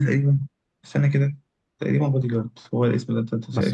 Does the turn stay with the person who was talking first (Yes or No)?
No